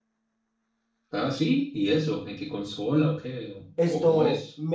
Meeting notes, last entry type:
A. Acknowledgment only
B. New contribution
B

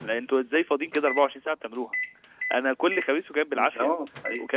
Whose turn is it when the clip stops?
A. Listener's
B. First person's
B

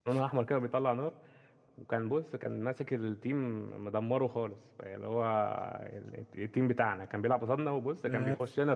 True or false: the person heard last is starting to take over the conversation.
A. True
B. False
B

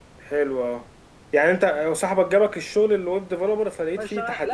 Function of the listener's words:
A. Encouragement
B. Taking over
B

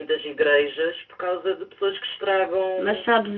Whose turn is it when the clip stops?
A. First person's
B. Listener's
B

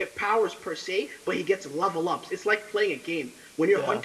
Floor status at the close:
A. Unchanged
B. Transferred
A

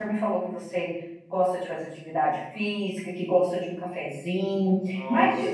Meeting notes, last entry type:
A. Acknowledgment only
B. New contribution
A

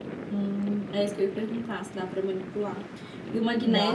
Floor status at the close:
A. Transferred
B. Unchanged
B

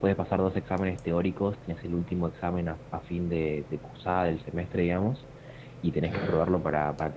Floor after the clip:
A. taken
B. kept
B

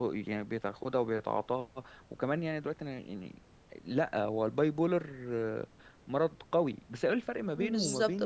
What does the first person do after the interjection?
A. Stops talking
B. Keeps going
A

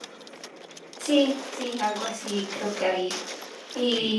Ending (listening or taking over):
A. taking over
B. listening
B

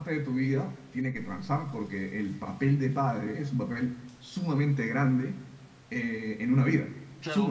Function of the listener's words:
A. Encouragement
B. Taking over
B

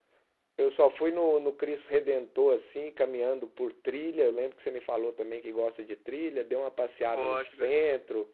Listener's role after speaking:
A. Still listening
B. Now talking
A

